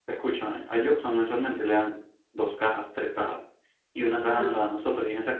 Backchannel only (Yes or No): Yes